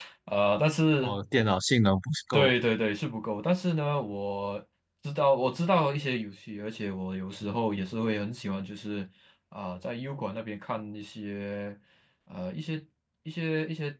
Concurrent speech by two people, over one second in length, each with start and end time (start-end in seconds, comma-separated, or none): none